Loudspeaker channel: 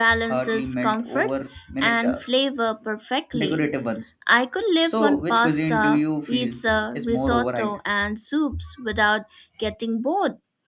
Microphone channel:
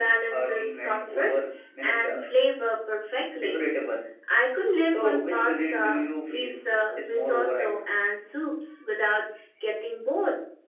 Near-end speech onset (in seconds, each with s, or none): none